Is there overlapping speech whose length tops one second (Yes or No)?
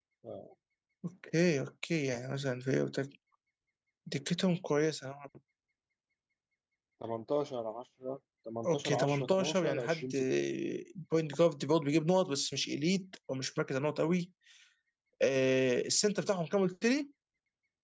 Yes